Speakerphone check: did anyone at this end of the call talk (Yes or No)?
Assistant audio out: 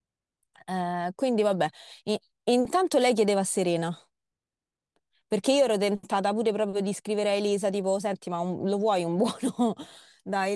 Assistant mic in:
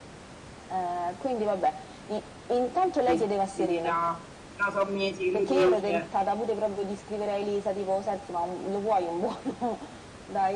Yes